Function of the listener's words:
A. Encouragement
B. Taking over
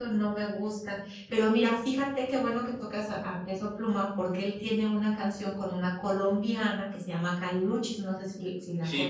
B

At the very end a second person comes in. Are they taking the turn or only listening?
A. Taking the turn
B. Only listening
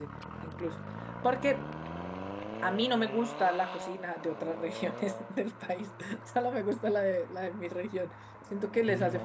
B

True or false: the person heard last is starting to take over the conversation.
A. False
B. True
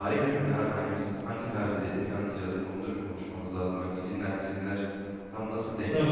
B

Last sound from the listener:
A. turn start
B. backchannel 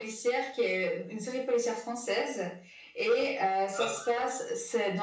B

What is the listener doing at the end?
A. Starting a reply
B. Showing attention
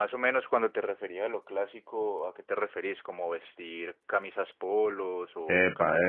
A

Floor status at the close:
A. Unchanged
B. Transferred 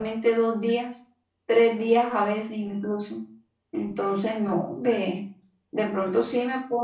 A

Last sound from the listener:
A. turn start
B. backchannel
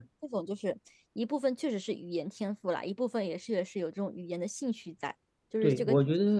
A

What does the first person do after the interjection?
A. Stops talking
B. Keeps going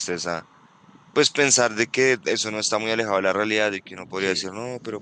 B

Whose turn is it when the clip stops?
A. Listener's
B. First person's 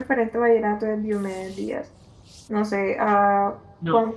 B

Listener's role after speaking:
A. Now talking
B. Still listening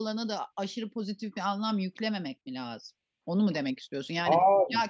B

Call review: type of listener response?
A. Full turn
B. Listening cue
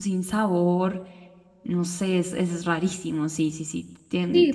A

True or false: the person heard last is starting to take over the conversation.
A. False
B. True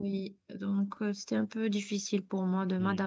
B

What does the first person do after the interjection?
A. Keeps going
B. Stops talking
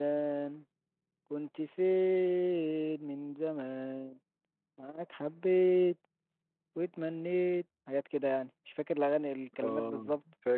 B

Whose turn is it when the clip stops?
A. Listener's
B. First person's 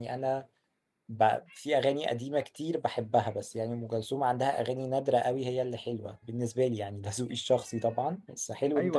A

